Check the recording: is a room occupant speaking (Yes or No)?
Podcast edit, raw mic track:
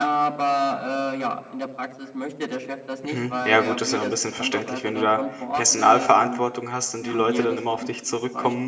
Yes